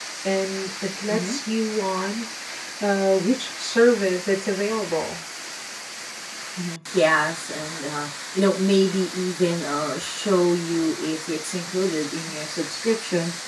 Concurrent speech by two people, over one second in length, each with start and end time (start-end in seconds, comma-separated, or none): none